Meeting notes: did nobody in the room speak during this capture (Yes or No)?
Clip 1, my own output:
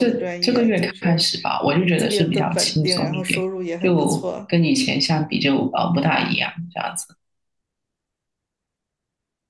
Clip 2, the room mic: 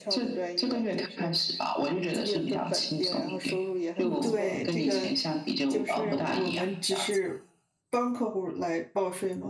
No